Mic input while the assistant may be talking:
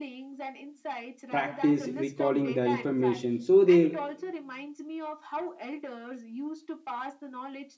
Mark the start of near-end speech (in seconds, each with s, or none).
1.3 s